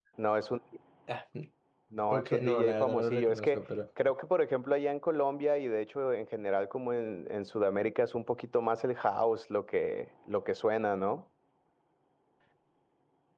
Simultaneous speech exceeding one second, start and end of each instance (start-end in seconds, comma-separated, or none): 2.1-3.6